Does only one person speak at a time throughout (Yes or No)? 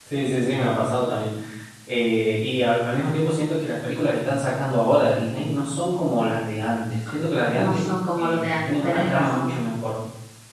No